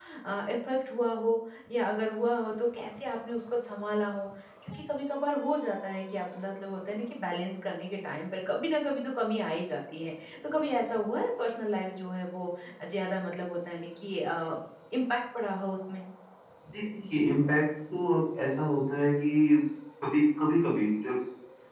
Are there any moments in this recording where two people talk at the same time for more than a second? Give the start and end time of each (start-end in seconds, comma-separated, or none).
none